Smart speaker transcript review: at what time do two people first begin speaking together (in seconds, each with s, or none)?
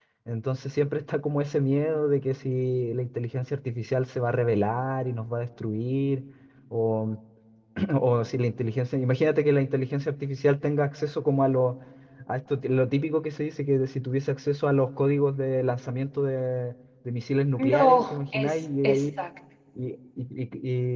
17.6 s